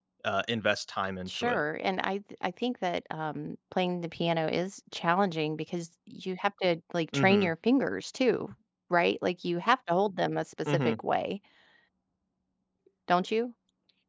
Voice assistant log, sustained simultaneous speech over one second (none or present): none